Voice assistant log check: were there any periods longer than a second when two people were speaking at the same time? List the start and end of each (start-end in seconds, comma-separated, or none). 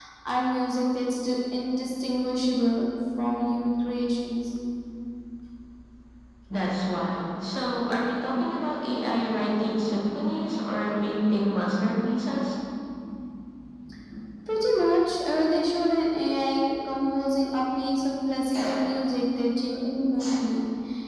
none